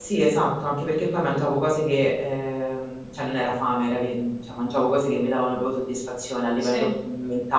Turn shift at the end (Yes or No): No